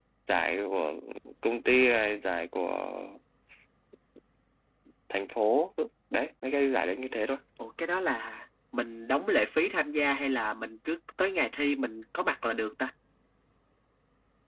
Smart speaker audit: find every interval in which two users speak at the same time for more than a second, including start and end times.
none

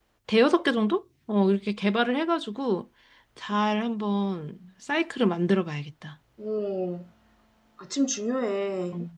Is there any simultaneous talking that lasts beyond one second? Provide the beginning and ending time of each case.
none

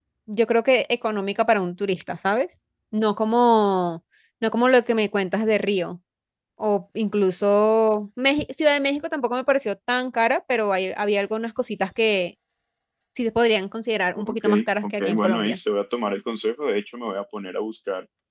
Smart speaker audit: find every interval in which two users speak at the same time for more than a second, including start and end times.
14.2-15.6

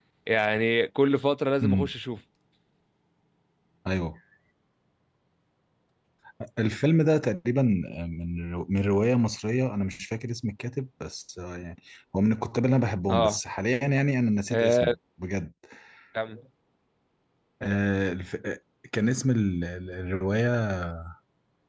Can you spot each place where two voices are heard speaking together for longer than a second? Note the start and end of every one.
none

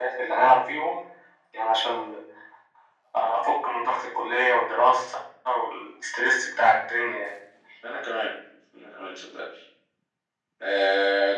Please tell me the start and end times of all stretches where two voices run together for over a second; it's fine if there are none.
none

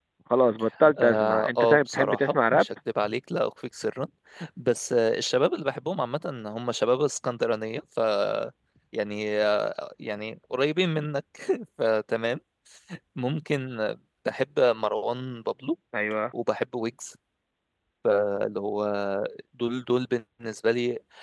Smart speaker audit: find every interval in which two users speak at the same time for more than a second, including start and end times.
1.0-2.6

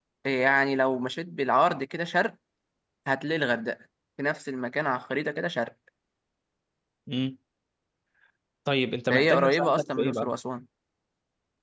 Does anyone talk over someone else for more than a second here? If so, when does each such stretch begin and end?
9.1-10.3

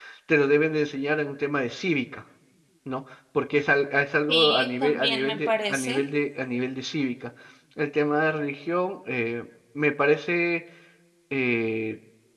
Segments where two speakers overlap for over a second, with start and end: 4.3-6.0

